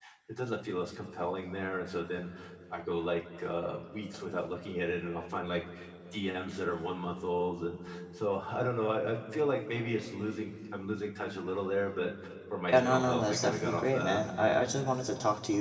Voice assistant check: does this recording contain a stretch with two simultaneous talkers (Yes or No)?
Yes